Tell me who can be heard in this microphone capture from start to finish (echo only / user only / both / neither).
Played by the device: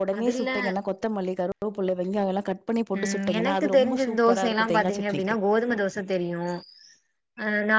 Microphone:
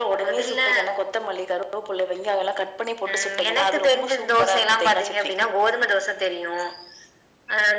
echo only